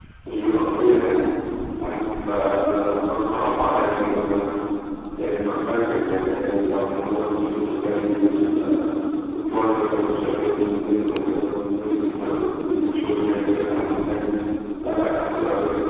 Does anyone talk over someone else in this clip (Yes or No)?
No